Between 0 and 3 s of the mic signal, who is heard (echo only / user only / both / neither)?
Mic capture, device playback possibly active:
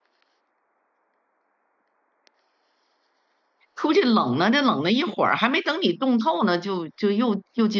neither